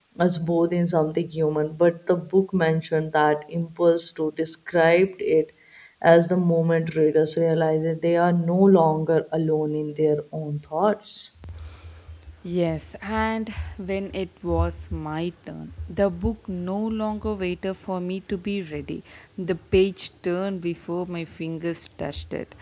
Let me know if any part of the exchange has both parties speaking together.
No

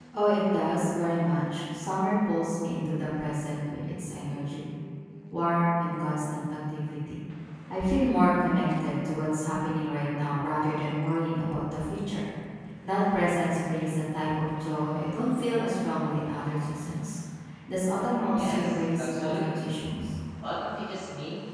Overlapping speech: Yes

